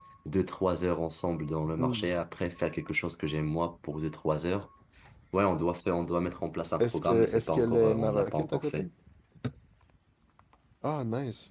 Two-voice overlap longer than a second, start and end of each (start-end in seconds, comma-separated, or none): 6.8-8.9